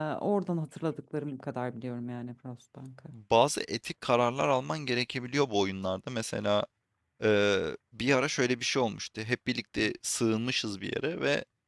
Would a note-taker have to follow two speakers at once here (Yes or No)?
No